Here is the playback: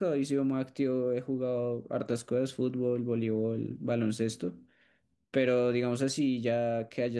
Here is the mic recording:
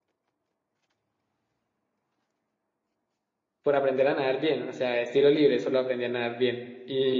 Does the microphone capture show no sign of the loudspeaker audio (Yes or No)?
Yes